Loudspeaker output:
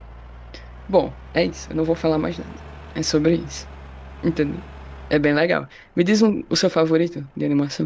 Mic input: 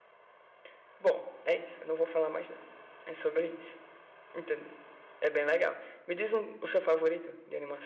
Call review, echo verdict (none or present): present